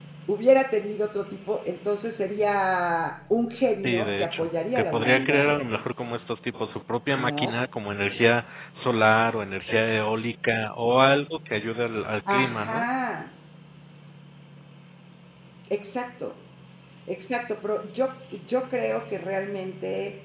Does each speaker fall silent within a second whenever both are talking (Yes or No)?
No